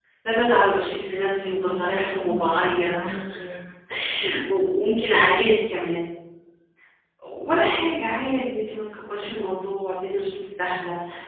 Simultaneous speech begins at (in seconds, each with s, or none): 1.4 s